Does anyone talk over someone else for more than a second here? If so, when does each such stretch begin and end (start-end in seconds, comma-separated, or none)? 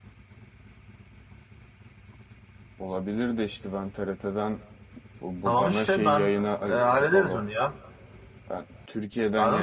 5.5-7.4